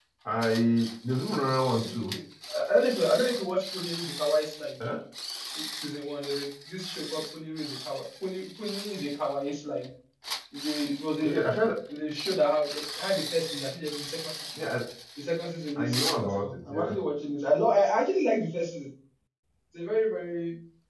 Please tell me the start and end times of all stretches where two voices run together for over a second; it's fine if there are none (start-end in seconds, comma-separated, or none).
15.8-17.0